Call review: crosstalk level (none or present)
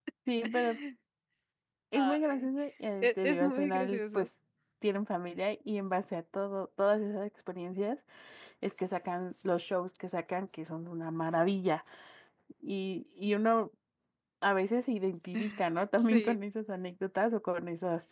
present